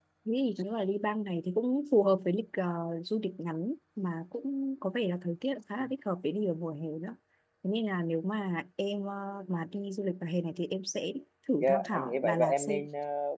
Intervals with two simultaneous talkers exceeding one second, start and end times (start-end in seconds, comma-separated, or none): 11.6-12.8